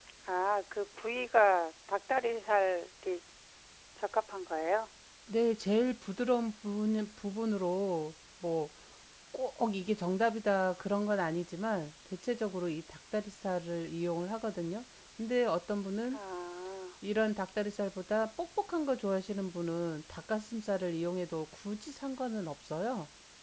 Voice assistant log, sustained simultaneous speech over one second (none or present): none